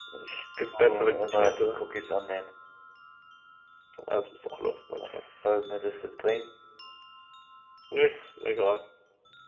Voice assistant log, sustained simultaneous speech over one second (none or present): present